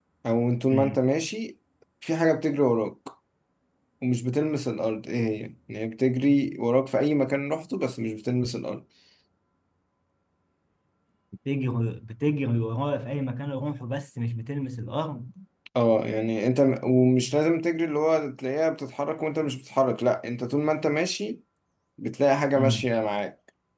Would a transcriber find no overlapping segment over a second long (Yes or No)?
Yes